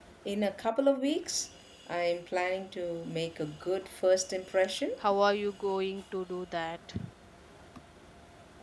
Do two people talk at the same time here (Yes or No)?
No